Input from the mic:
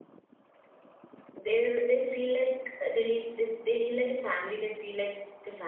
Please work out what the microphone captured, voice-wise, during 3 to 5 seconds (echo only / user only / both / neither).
user only